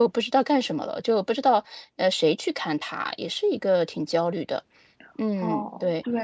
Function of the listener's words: taking over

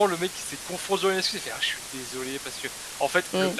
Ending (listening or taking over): listening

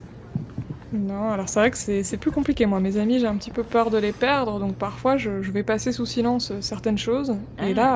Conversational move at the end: listening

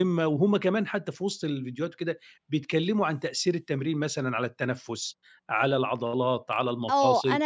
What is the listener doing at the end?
taking over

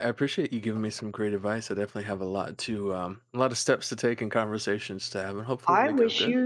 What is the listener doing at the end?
taking over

